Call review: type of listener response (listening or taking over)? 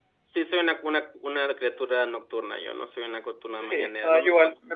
taking over